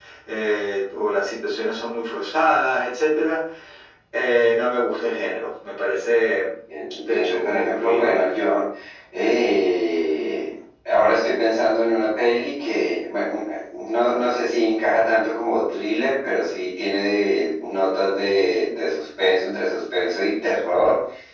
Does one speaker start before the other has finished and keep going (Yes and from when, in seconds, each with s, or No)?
Yes, from 7.1 s